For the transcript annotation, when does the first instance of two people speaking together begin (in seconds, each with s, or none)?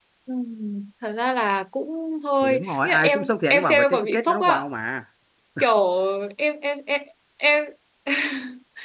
2.4 s